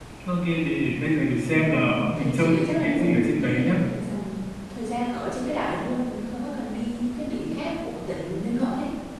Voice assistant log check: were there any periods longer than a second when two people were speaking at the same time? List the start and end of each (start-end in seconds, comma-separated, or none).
1.5-3.8